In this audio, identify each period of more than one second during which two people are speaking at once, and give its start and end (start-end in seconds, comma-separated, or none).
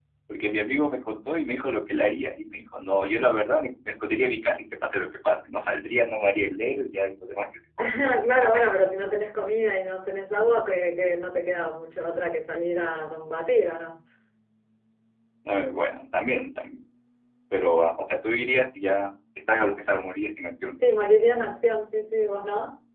none